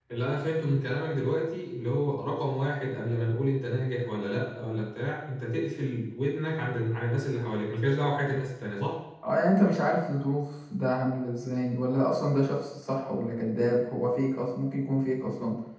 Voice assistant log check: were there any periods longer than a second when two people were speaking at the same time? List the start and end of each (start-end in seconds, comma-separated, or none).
none